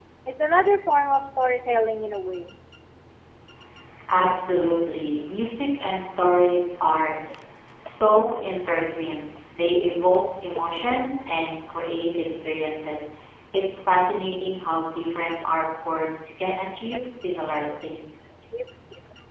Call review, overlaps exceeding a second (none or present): none